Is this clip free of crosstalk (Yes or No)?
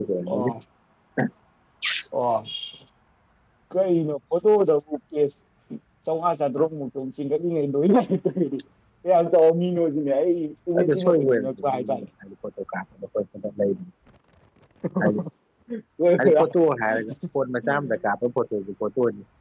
No